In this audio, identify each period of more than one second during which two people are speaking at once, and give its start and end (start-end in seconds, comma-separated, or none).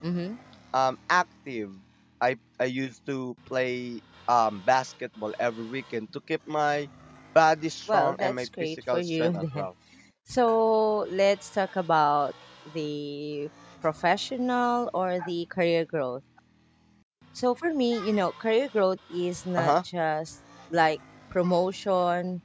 7.9-9.7